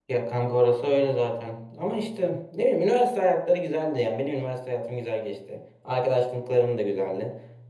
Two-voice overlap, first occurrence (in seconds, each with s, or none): none